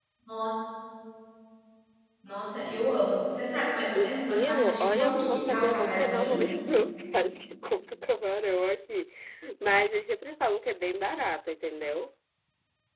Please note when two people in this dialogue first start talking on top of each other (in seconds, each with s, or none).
3.9 s